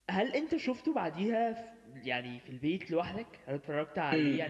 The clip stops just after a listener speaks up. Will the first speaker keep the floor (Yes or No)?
No